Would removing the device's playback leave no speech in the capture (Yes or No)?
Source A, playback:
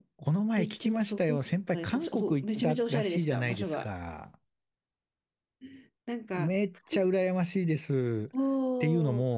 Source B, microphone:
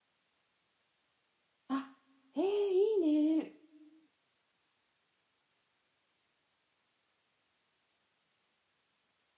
No